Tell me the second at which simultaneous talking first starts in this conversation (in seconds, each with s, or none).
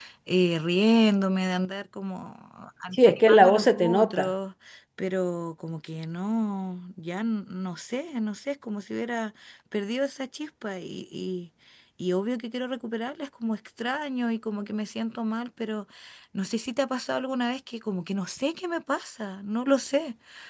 2.9 s